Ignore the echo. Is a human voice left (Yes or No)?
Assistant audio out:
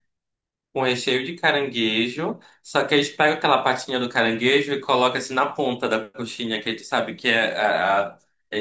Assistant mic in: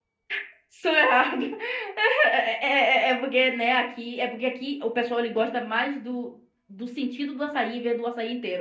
Yes